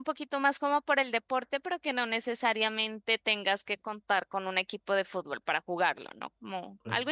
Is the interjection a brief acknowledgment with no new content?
No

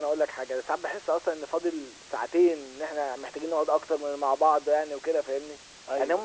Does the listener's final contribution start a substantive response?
No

